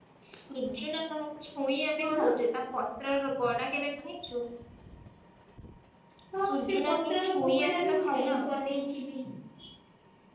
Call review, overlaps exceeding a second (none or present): present